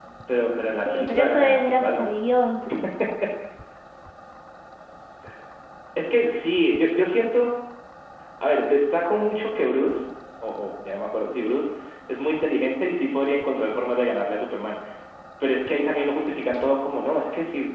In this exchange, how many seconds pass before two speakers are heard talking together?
1 s

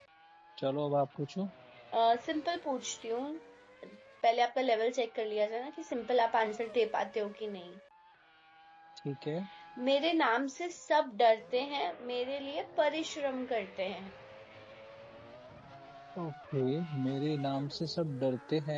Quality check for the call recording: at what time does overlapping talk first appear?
none

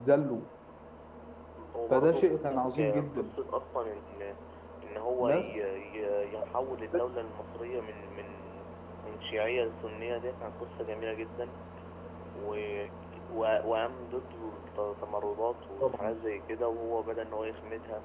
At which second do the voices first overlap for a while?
2 s

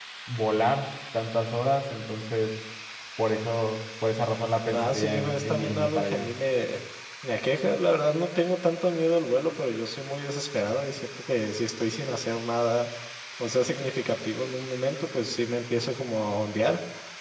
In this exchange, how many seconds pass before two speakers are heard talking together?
5 s

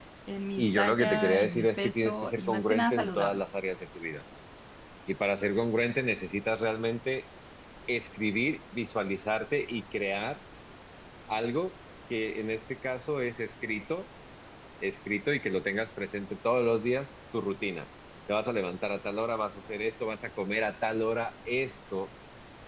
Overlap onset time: 1 s

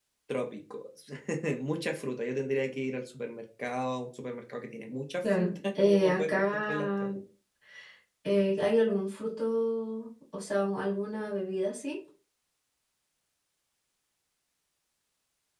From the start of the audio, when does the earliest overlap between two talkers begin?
5 s

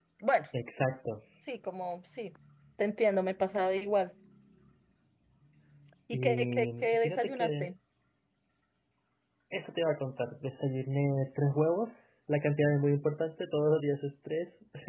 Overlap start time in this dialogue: 6 s

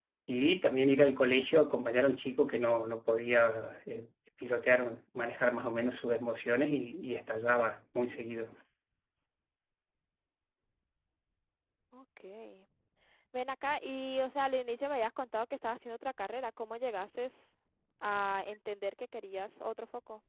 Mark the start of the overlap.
none

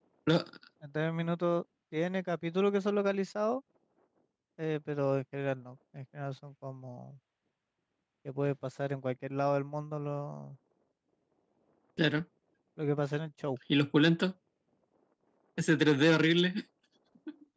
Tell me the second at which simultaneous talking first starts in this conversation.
none

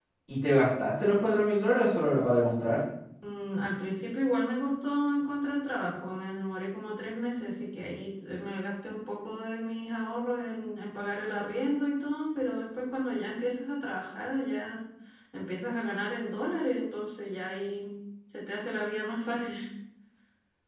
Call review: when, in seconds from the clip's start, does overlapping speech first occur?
none

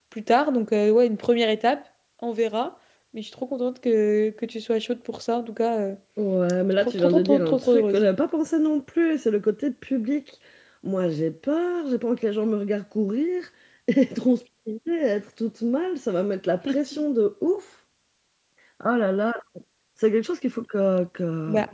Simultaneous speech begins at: 7 s

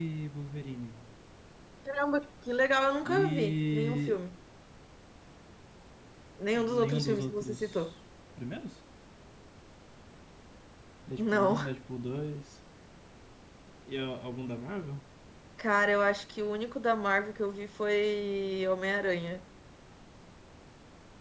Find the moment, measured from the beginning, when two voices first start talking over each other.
3 s

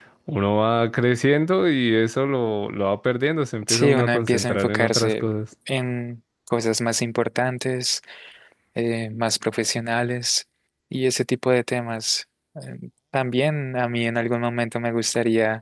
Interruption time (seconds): 4 s

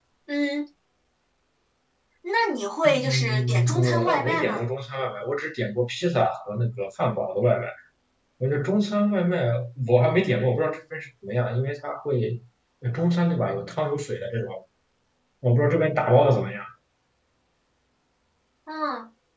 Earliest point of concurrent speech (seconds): 3 s

